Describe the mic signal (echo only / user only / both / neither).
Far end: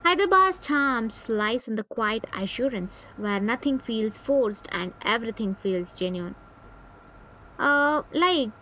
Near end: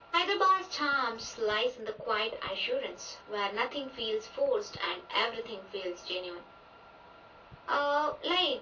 echo only